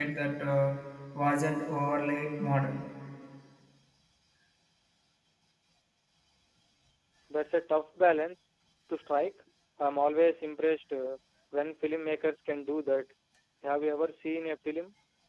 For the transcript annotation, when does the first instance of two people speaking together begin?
none

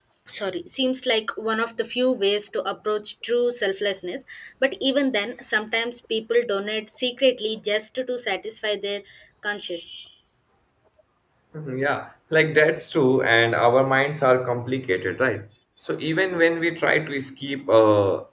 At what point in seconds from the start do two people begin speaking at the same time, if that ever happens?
none

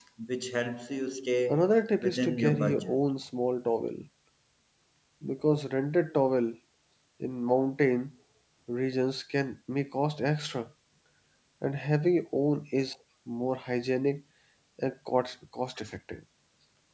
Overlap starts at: 1.5 s

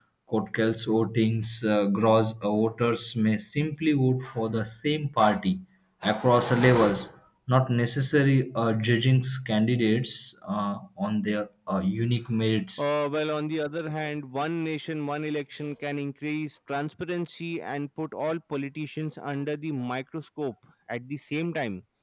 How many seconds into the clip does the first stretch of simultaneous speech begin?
none

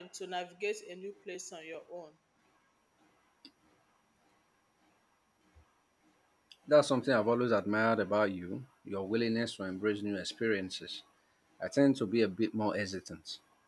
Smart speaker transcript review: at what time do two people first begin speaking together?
none

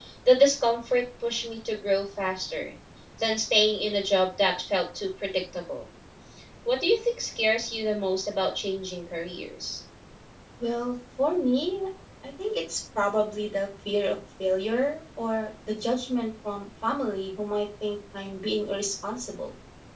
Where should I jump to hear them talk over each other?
none

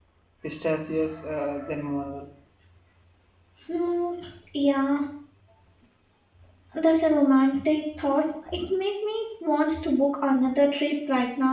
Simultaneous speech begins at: none

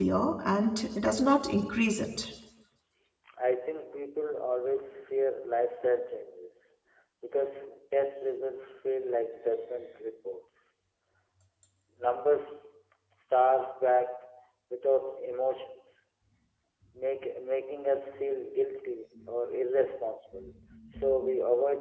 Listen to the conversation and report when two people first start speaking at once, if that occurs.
none

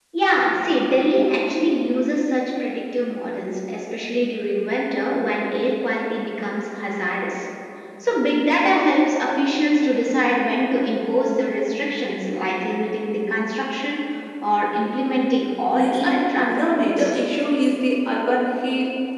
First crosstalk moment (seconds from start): 15.7 s

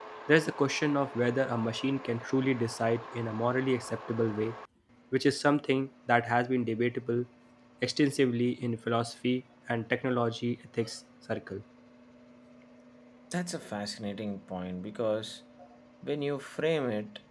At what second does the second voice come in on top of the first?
none

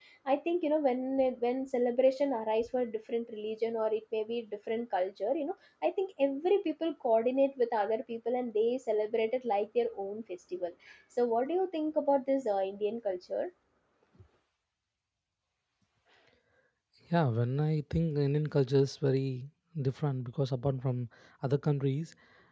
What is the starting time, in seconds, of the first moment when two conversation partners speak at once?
none

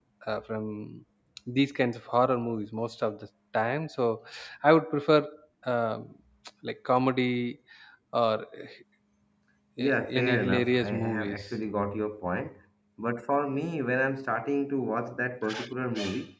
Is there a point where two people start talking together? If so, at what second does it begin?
9.8 s

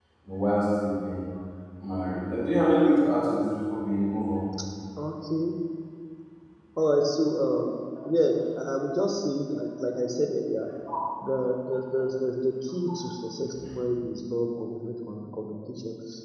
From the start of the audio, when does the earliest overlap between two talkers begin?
none

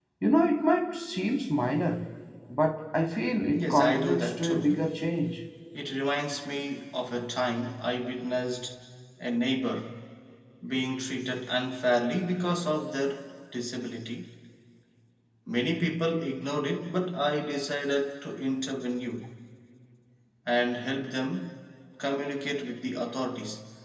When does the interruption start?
3.5 s

